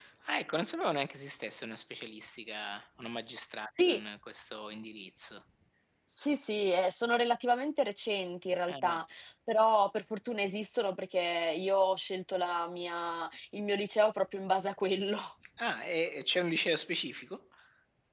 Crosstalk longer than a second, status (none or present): none